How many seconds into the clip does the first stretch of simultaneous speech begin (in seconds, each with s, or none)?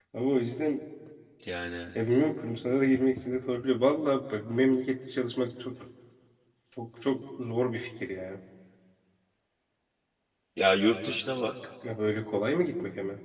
none